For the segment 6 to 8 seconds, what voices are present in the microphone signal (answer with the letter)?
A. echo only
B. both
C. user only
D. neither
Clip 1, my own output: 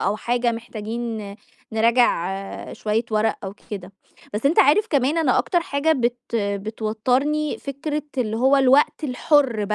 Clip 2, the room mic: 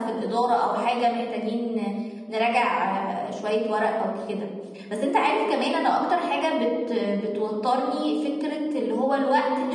A